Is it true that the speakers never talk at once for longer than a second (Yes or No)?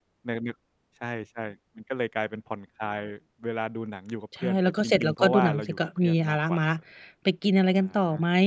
No